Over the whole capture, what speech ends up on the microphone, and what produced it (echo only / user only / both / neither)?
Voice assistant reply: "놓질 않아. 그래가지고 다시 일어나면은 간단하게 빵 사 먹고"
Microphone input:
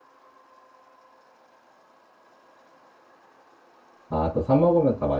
user only